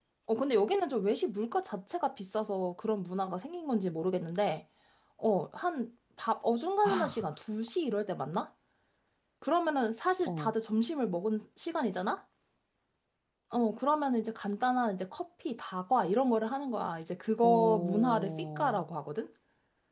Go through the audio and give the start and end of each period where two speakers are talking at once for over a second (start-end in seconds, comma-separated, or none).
17.4-18.8